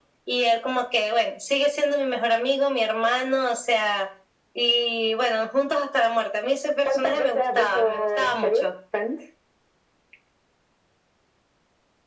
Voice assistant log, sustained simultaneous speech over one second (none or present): present